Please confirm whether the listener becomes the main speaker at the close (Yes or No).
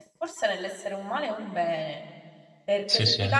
No